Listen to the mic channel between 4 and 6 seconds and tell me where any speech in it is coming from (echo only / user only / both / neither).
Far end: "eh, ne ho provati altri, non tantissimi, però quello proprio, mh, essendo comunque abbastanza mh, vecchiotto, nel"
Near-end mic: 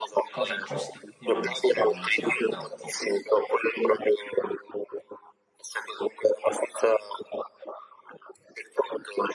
echo only